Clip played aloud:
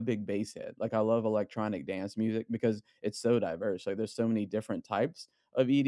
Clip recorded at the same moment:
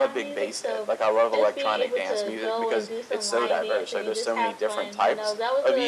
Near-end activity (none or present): present